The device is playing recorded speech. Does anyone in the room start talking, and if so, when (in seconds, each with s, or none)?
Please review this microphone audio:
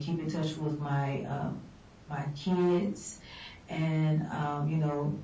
none